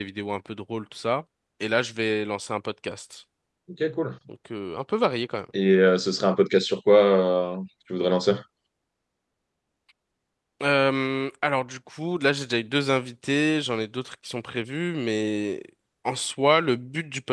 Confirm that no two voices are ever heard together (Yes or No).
Yes